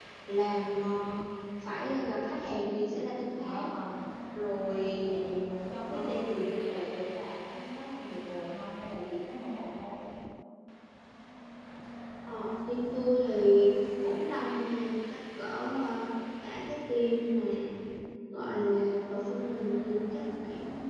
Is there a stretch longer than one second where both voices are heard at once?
No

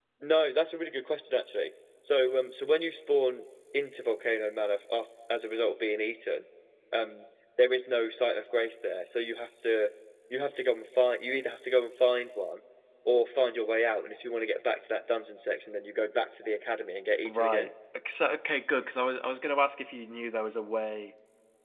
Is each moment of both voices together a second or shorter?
Yes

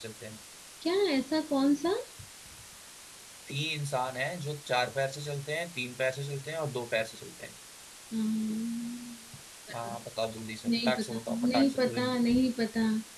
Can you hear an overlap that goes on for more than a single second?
Yes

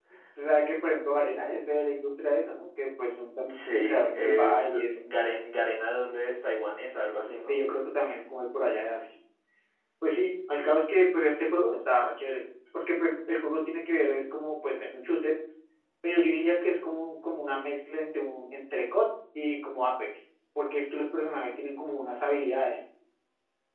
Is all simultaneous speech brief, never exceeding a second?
No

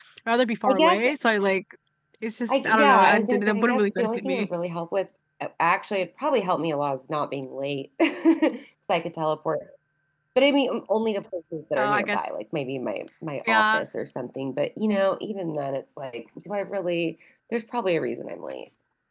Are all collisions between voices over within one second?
No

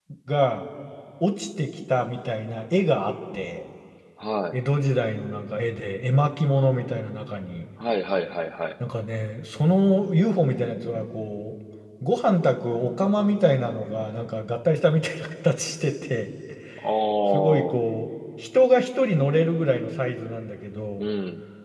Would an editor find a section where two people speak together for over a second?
No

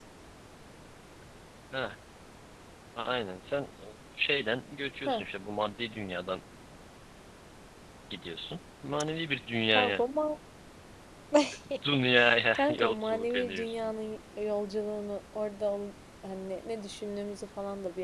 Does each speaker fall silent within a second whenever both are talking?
No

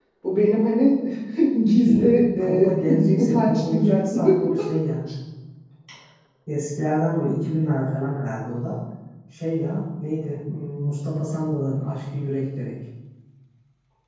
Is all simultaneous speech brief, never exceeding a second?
No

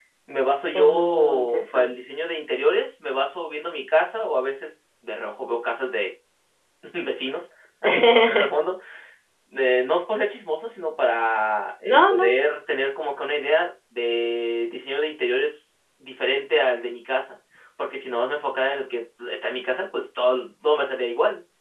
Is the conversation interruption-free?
No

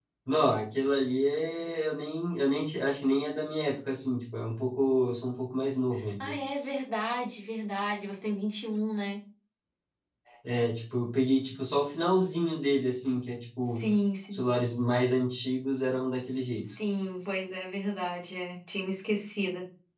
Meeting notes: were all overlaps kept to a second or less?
Yes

